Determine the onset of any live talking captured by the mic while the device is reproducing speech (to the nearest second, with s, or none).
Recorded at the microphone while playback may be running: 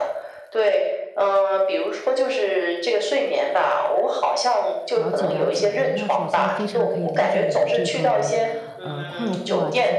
5 s